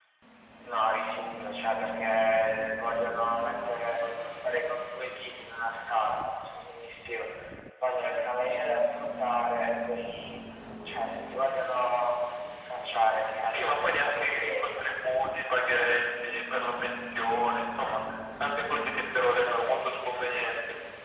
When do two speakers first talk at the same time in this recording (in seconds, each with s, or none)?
13.4 s